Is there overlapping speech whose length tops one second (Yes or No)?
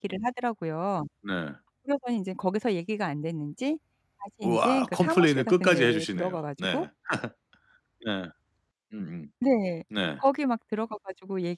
Yes